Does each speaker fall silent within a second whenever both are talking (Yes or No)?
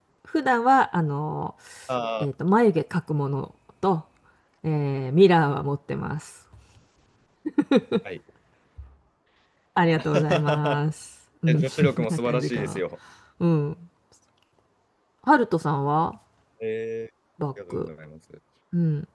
No